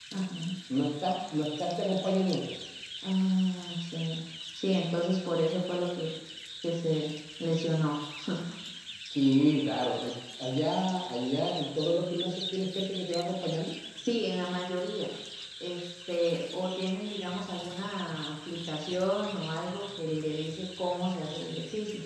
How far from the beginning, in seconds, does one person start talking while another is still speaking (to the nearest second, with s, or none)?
none